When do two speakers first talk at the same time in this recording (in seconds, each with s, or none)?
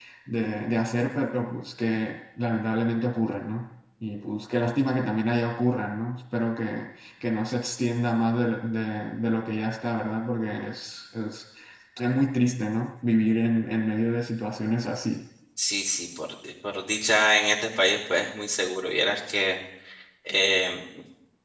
none